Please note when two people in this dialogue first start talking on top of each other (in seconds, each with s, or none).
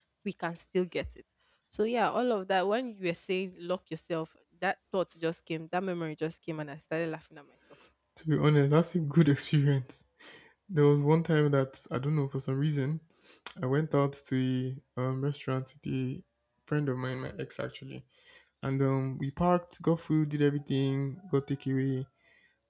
none